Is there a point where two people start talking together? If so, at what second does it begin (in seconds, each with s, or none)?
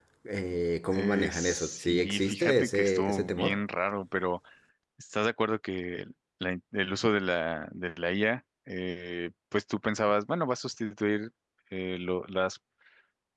0.9 s